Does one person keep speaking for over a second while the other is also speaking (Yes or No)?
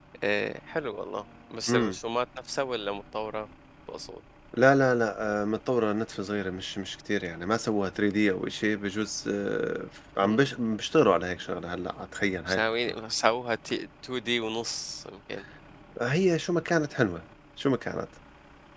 No